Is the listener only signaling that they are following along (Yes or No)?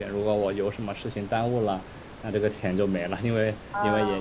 Yes